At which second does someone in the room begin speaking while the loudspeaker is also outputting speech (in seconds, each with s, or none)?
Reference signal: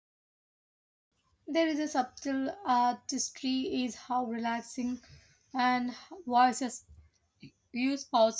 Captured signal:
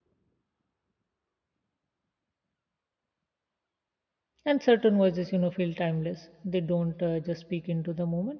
4.4 s